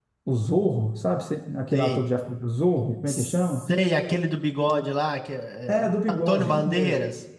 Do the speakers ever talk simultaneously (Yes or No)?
Yes